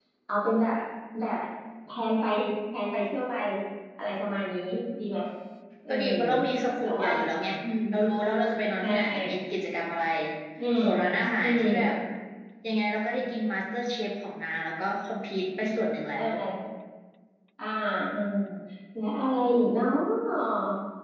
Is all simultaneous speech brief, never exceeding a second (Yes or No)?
Yes